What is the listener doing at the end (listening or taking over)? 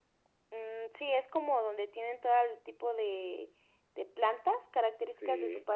taking over